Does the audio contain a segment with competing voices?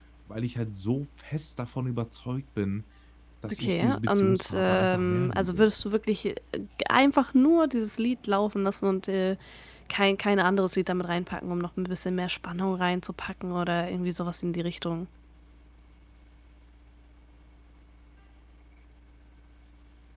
Yes, from 3.5 s

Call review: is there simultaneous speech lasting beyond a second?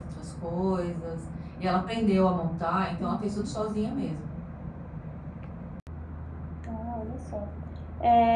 No

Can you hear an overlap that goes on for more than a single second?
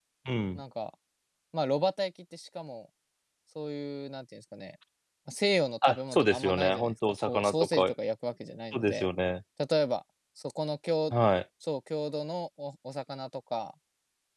Yes, from 5.8 s

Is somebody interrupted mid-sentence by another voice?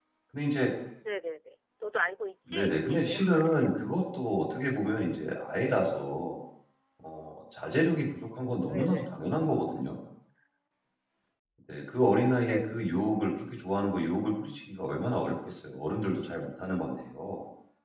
Yes, from 2.5 s

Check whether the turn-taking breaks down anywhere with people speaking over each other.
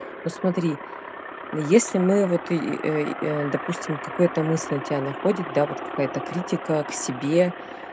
No

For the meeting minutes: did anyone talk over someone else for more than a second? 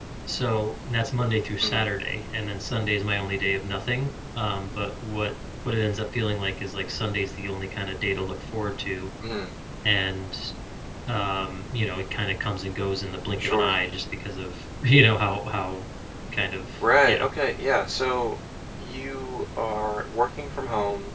No

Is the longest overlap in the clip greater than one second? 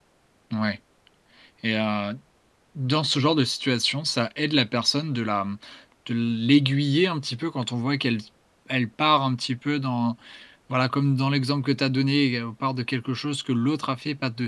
No

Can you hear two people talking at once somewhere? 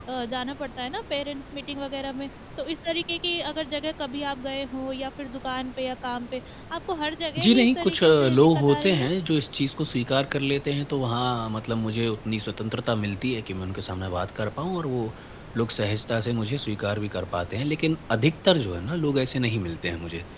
Yes, from 7.4 s

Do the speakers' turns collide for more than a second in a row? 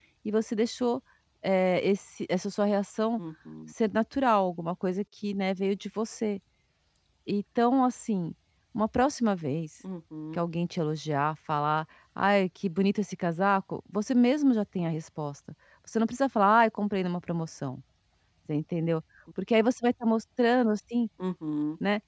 No

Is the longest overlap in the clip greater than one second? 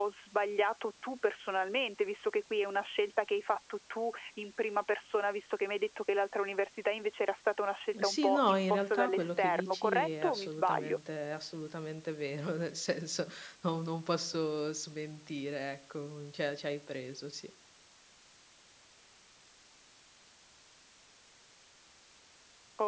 Yes, from 7.9 s

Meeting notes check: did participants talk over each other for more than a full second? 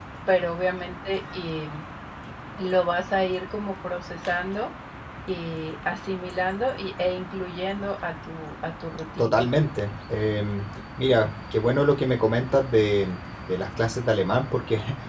No

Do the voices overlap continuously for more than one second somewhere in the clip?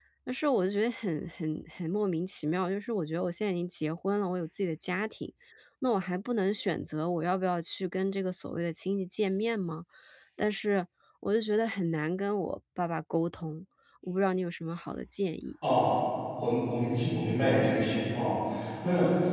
No

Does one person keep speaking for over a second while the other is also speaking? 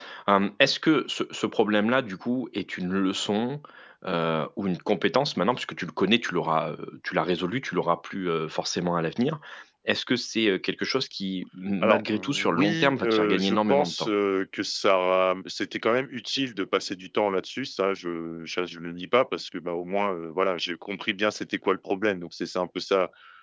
Yes, from 11.8 s

